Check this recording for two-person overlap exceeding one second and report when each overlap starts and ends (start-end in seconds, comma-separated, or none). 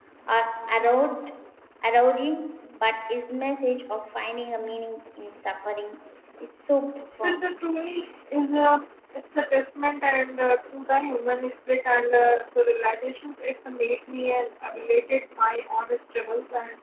none